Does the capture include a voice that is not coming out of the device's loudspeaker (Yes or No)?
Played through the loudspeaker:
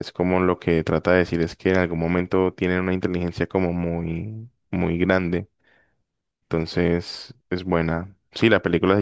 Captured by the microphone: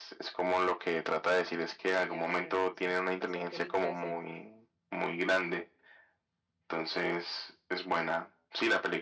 Yes